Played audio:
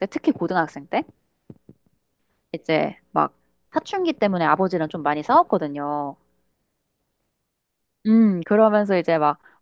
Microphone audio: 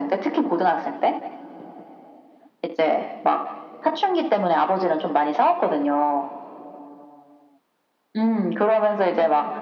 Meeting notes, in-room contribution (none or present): none